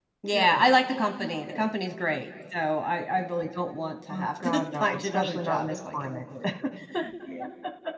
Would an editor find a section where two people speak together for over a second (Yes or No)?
Yes